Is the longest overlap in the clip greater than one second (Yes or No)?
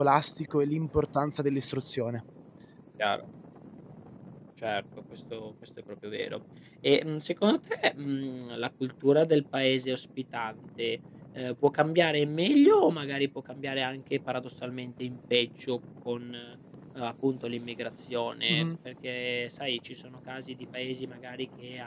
No